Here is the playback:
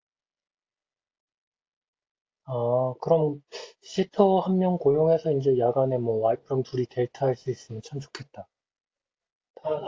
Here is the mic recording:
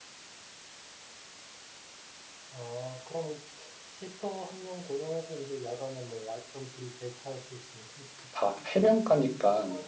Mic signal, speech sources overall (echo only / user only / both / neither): both